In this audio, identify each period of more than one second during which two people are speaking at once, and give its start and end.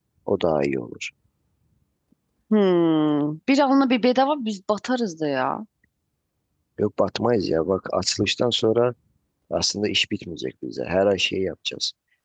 none

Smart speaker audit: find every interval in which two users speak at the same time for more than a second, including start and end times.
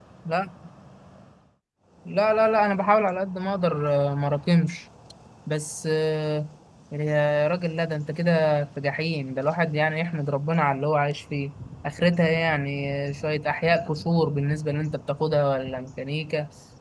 none

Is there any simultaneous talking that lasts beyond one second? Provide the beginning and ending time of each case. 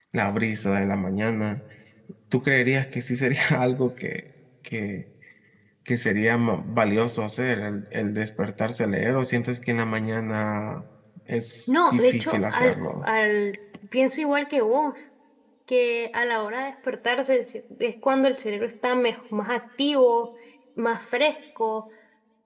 11.7-13.1

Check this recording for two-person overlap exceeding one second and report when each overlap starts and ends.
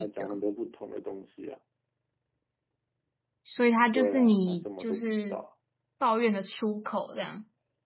3.9-5.4

